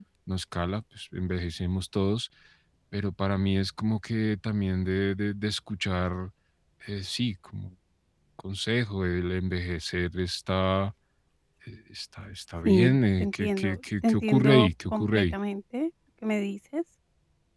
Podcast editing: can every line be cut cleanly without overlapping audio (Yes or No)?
No